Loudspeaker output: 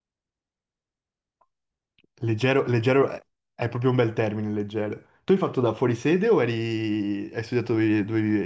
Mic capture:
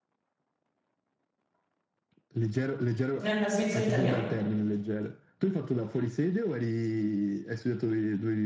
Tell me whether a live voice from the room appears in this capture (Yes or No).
Yes